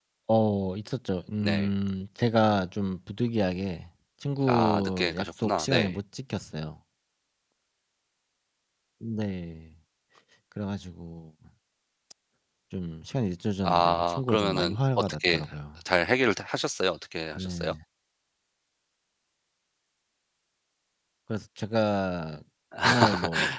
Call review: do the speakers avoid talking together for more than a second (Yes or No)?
No